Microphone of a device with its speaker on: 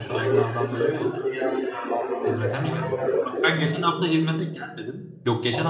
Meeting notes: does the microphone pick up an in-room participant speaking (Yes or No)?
Yes